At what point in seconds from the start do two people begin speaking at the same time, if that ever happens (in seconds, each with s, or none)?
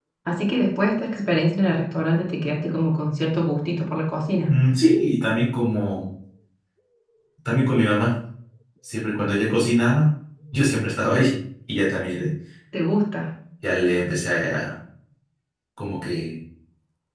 none